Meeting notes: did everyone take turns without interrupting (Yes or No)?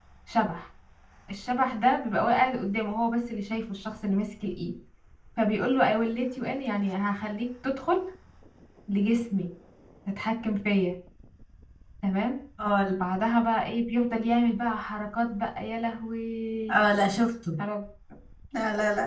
Yes